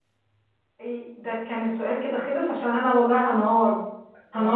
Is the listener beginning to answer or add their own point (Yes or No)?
No